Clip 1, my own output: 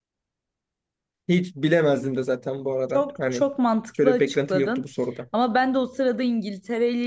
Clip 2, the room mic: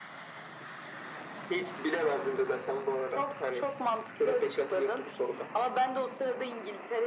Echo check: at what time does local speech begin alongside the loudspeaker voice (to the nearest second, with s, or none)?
none